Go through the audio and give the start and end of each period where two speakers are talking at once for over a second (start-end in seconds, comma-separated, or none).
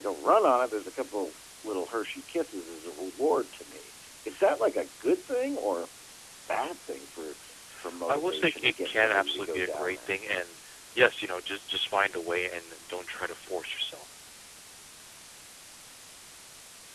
8.1-10.2